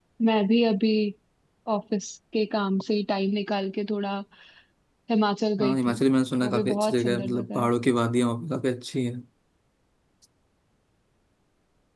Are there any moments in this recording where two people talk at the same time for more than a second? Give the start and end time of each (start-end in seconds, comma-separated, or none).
6.4-7.7